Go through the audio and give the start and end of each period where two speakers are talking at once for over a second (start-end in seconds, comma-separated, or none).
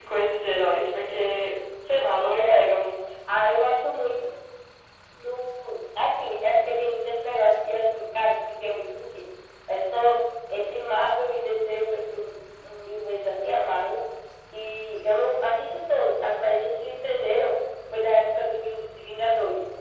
none